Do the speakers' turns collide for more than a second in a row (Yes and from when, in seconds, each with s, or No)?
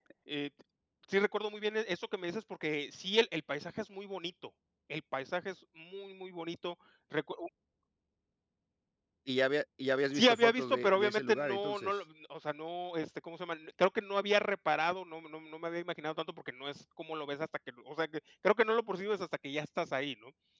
Yes, from 10.1 s